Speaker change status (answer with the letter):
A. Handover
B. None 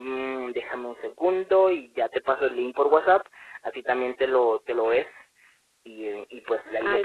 A